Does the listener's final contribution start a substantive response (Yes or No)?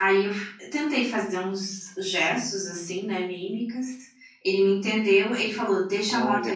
No